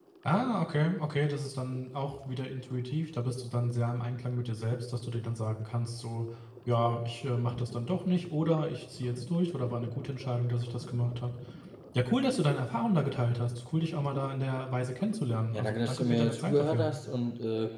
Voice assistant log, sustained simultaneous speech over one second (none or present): present